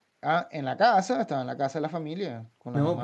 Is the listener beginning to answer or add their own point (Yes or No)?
Yes